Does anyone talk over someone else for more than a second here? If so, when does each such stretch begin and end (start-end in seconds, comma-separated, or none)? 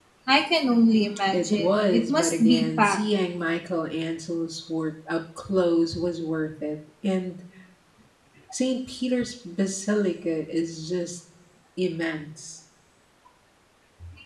1.3-3.0